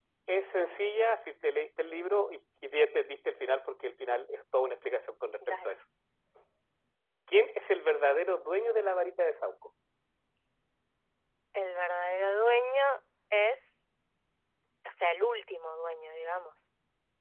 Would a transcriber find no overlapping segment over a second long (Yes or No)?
Yes